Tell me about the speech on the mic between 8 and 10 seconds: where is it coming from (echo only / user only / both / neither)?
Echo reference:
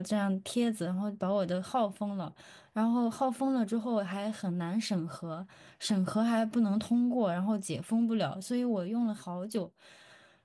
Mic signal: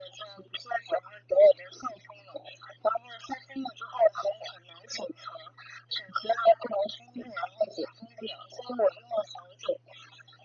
echo only